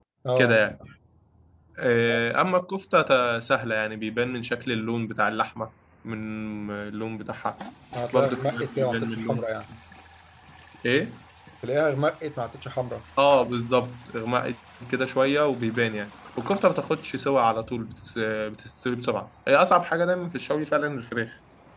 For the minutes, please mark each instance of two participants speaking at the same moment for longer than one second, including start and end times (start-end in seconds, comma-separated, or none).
8.1-9.4